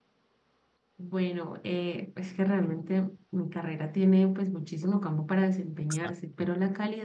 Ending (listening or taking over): listening